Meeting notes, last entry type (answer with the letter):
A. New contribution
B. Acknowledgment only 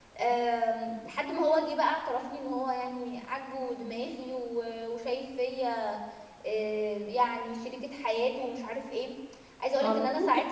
A